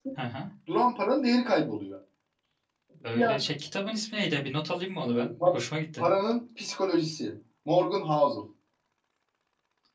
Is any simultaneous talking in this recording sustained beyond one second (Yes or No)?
No